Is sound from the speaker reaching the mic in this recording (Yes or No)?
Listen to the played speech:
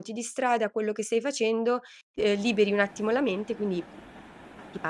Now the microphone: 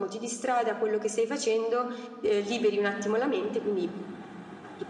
Yes